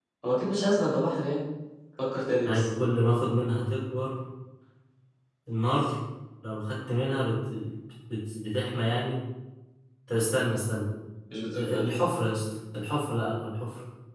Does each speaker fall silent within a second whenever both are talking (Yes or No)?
Yes